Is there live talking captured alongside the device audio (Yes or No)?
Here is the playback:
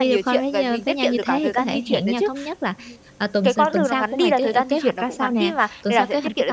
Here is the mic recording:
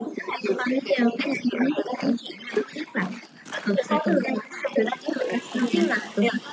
No